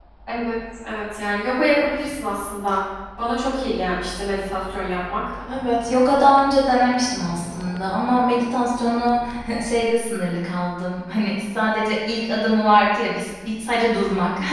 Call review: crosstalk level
none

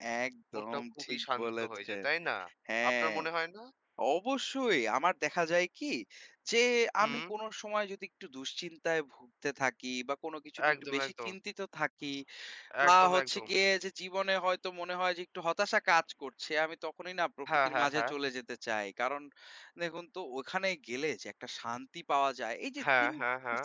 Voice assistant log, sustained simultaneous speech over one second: present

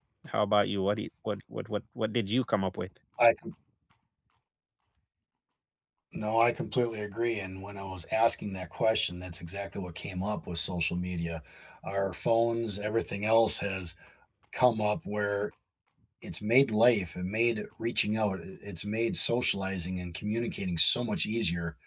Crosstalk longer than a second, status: none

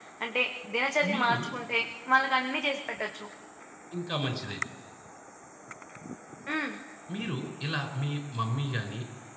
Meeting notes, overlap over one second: none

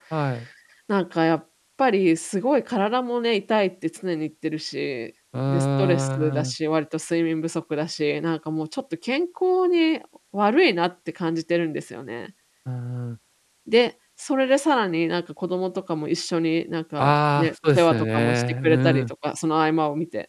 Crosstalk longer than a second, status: present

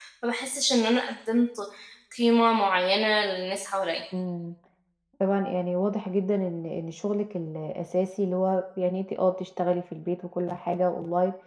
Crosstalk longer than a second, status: none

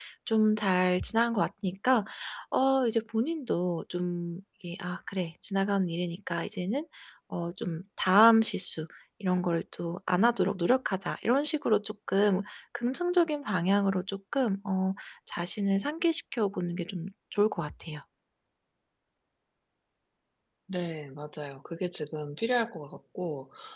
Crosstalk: none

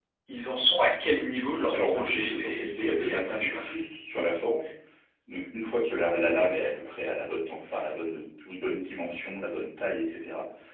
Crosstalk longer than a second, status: present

